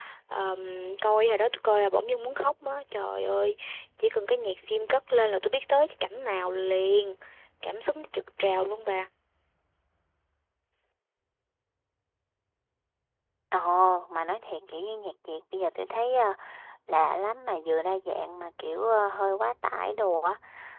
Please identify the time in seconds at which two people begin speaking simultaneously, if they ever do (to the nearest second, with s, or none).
none